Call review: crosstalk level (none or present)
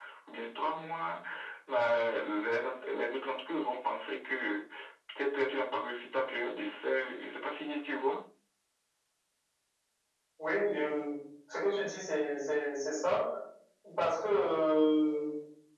none